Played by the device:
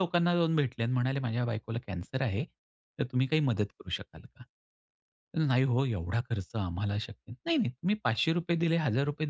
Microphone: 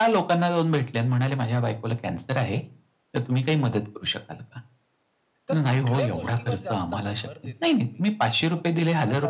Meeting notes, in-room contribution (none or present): present